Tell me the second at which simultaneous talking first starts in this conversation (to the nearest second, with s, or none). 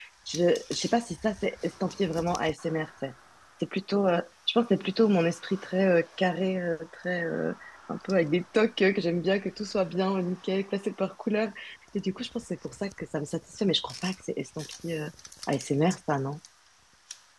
none